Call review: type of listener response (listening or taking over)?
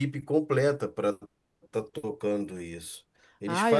listening